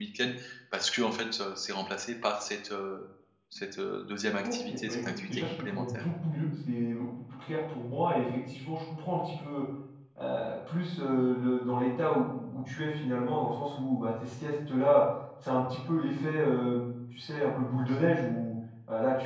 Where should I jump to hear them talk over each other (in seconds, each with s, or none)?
4.4 s